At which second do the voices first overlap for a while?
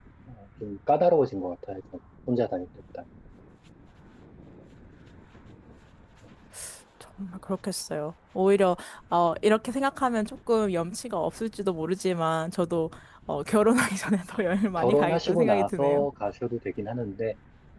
14.8 s

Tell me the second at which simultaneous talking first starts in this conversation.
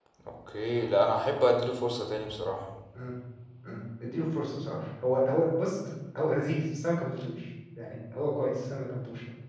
none

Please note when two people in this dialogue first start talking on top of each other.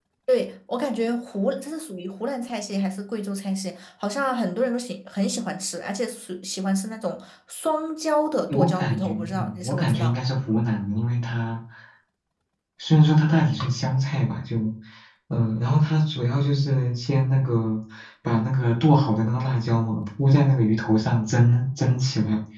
8.5 s

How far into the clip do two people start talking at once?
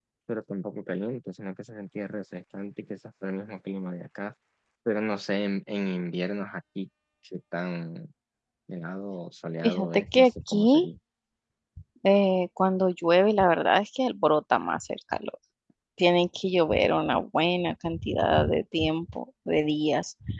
9.6 s

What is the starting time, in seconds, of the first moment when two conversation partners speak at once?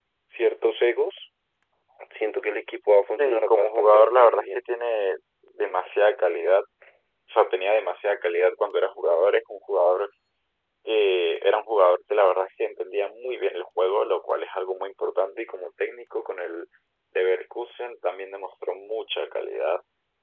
3.2 s

